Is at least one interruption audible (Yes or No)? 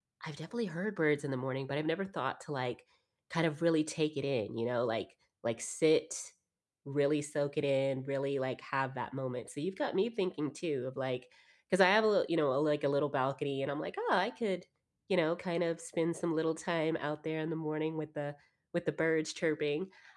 No